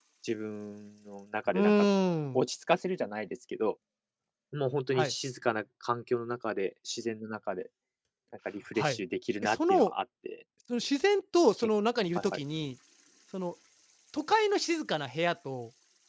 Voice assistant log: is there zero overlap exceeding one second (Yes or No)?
Yes